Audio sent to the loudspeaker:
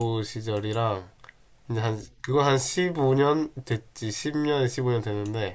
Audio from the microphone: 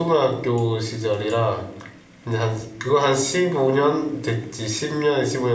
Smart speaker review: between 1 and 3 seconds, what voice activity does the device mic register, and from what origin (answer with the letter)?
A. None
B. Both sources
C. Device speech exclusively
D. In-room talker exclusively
C